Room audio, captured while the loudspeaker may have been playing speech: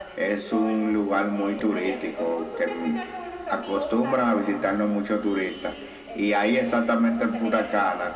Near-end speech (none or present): present